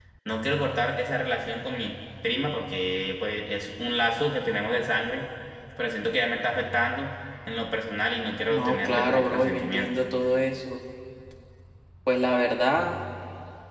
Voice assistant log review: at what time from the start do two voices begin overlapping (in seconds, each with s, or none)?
8.5 s